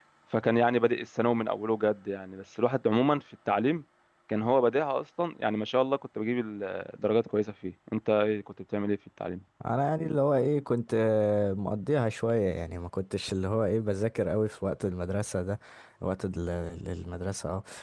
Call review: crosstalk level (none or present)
none